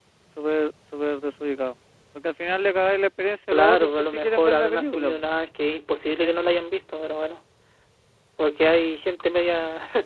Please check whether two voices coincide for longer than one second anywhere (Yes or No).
Yes